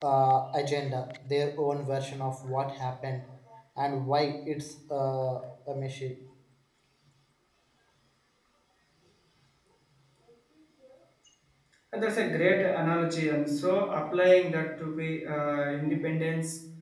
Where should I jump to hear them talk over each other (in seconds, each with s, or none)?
none